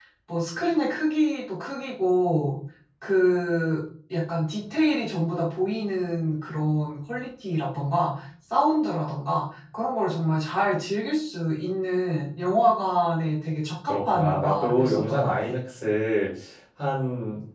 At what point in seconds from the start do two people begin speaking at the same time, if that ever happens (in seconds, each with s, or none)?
13.9 s